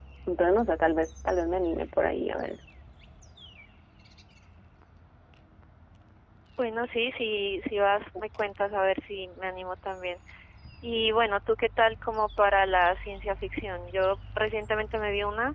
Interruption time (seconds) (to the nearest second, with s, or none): none